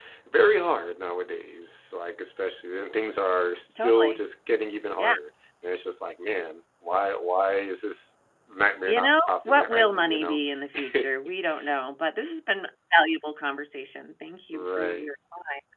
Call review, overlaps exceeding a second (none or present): present